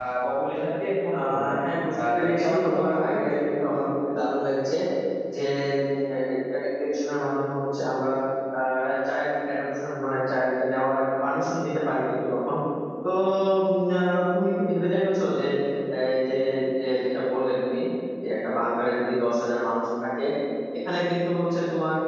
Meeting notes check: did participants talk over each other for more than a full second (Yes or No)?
Yes